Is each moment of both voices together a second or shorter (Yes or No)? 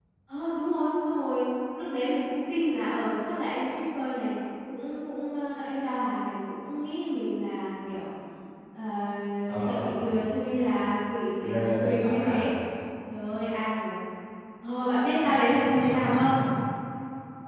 No